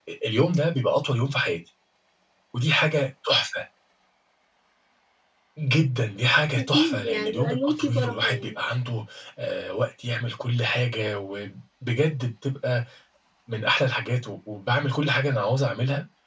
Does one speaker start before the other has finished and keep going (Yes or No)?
Yes